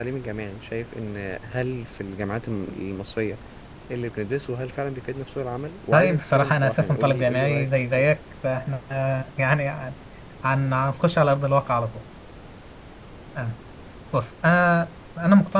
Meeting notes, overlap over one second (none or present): present